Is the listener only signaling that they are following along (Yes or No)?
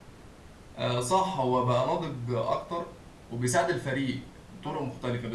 Yes